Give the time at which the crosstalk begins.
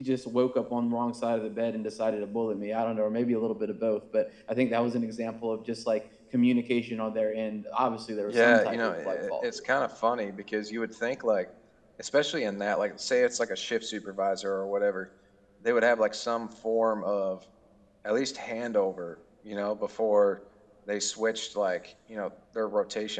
8.3 s

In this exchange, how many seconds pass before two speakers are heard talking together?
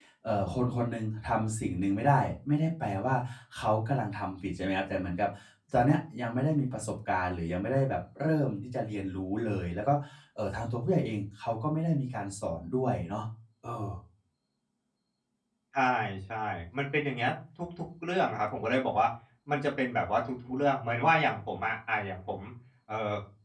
none

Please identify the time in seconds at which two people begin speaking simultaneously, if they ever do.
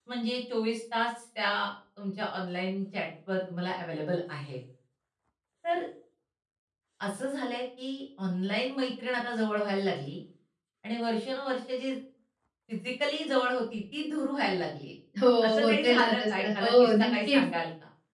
15.4 s

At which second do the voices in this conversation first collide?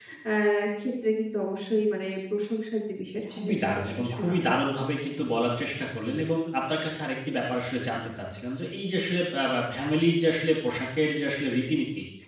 3.3 s

